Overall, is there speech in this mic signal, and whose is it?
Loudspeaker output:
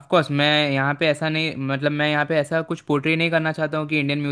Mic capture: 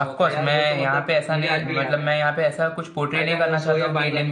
both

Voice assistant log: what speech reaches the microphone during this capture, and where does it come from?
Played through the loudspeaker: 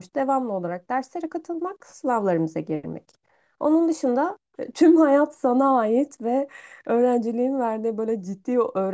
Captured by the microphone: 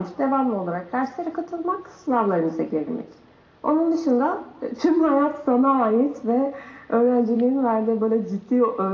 echo only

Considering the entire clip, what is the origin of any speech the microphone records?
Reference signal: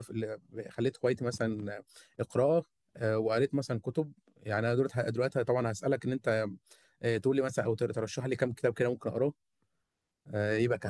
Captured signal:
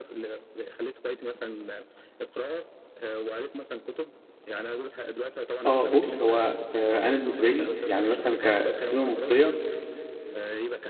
both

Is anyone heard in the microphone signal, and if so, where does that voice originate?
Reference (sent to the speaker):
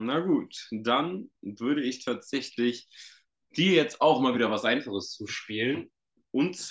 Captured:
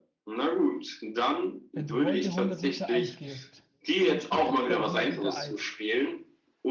both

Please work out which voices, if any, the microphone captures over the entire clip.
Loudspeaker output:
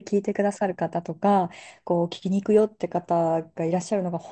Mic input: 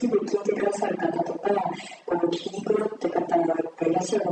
echo only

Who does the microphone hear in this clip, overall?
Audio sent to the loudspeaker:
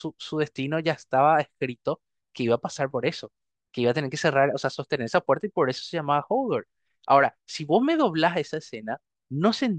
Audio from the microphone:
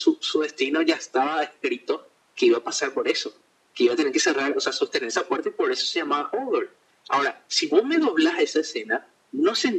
echo only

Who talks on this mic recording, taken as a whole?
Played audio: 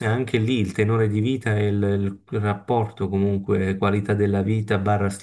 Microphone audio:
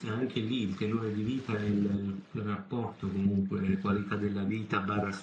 echo only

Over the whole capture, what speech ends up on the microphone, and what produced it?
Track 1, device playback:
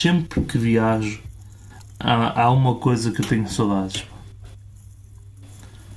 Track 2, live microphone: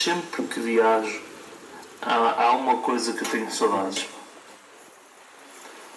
both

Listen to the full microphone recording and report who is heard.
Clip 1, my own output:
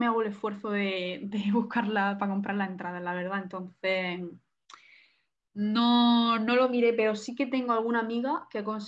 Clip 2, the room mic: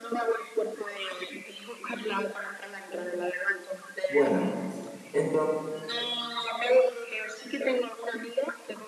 both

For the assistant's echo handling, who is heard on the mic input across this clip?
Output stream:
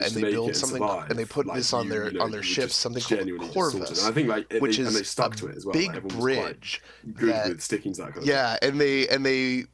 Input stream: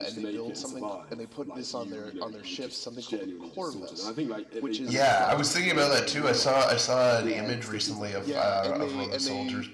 both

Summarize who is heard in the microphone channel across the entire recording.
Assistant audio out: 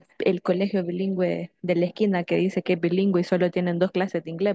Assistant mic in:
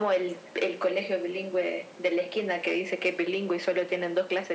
echo only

